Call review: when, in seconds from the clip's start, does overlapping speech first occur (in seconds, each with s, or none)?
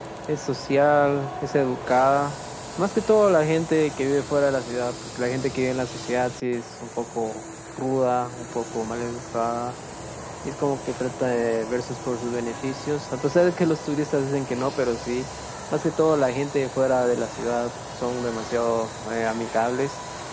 none